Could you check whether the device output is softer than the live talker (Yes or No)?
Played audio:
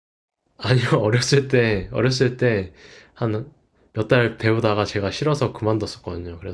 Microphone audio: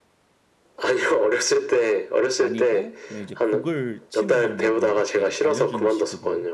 No